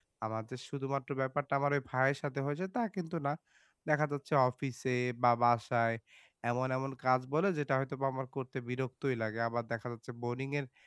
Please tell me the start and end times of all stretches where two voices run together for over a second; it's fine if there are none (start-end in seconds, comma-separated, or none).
none